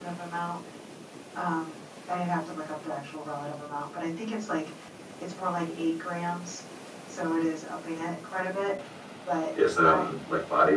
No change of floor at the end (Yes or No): No